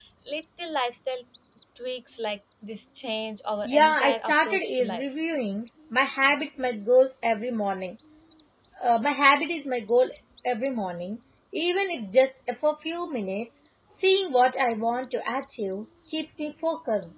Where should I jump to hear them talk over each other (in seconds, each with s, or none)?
3.6 s